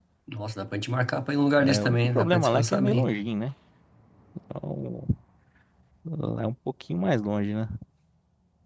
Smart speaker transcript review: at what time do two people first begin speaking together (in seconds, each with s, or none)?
1.6 s